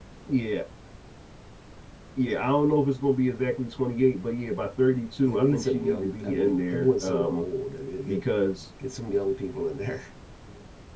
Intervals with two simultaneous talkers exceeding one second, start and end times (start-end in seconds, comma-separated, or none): 5.2-7.5